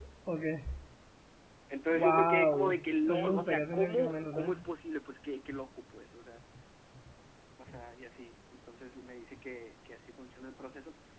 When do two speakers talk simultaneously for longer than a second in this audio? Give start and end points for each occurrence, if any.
1.9-4.5

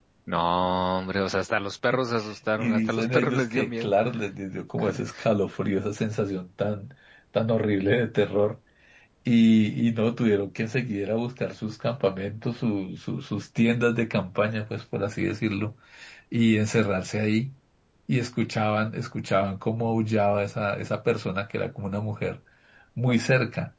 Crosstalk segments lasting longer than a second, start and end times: 2.6-3.9

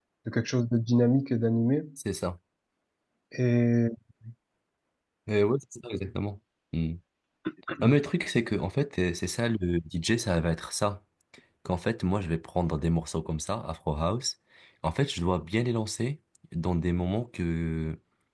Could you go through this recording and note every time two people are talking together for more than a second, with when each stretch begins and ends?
none

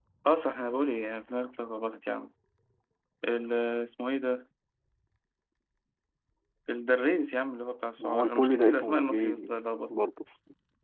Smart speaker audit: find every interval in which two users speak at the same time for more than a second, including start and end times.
8.0-9.5

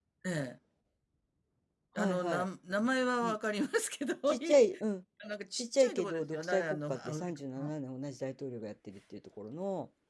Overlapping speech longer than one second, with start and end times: 5.6-7.7

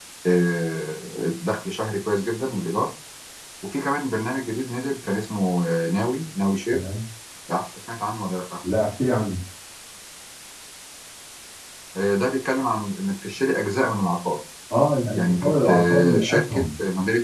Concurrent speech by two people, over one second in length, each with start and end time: 15.1-16.6

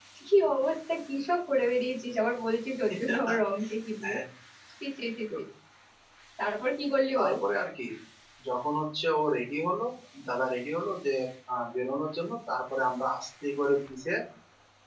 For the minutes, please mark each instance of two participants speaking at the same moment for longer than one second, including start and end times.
none

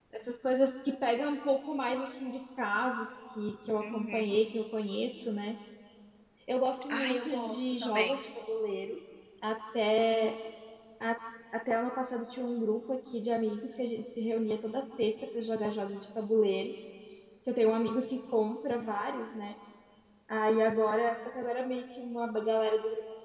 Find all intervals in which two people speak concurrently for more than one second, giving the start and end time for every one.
6.9-8.1

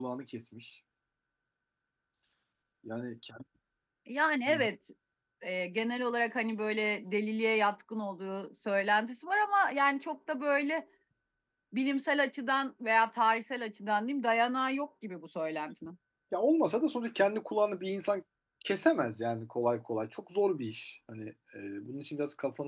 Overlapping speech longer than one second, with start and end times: none

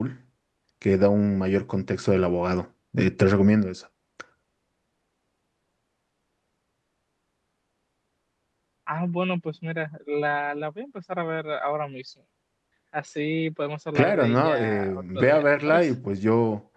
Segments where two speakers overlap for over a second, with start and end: 13.9-15.9

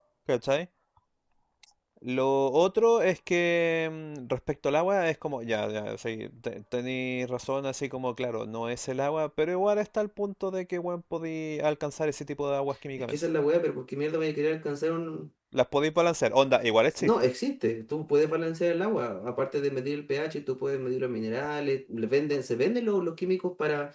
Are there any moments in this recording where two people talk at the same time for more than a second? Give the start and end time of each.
none

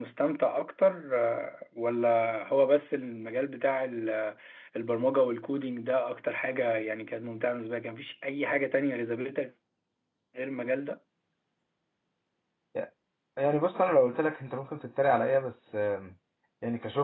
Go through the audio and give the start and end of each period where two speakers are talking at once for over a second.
none

